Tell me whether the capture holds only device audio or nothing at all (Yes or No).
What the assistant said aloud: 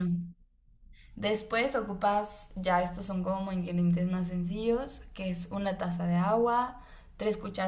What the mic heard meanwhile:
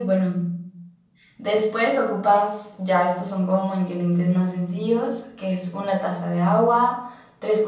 Yes